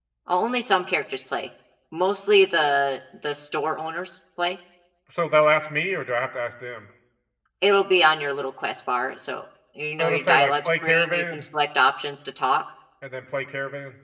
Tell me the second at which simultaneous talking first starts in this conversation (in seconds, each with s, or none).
10.0 s